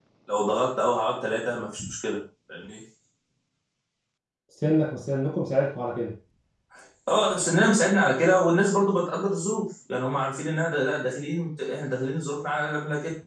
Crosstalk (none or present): none